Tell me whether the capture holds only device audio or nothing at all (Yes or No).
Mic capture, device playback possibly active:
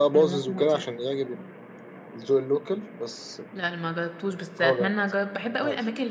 No